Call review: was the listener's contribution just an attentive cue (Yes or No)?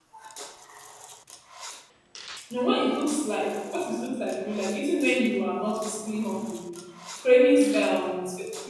Yes